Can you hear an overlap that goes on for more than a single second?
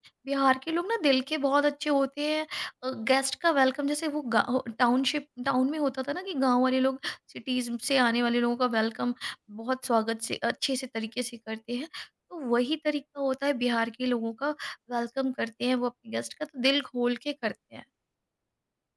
No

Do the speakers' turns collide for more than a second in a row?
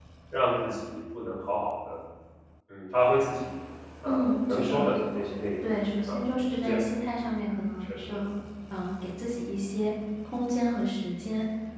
Yes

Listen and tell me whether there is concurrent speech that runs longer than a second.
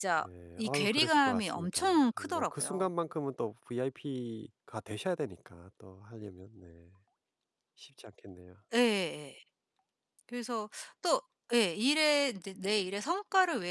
Yes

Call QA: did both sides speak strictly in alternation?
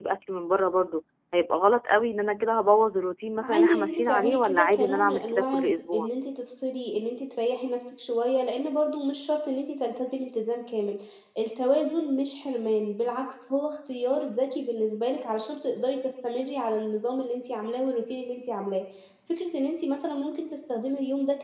No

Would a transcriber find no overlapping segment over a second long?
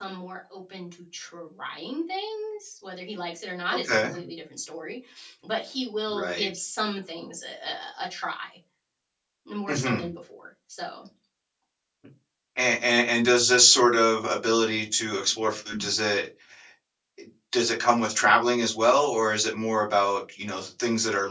Yes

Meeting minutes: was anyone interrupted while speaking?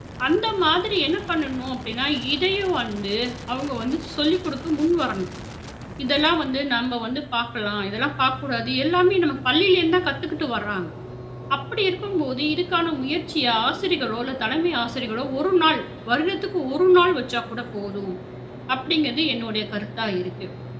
No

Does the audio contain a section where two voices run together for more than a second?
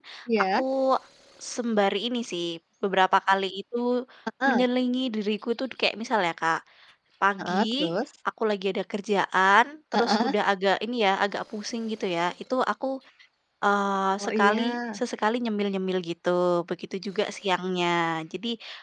No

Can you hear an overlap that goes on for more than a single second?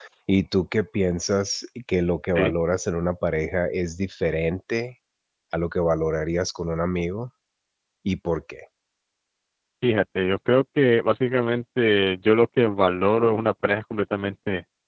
No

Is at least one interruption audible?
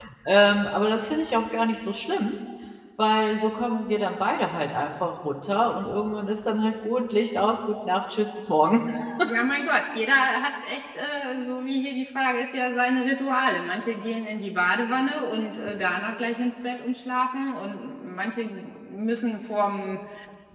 No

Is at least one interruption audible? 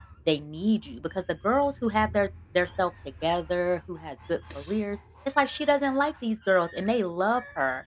No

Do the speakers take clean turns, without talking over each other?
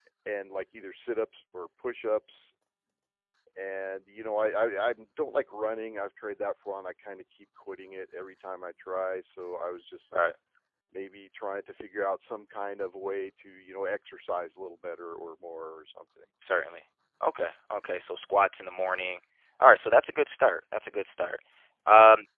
Yes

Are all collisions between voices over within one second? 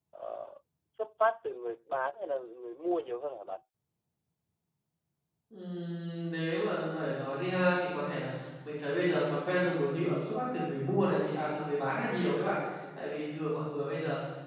Yes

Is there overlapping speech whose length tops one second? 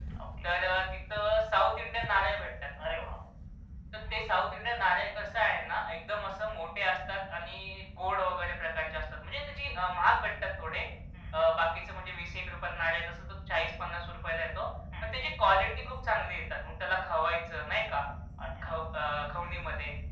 No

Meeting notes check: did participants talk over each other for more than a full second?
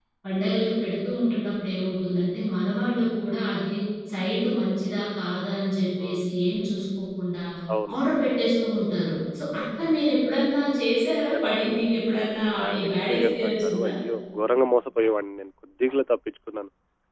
Yes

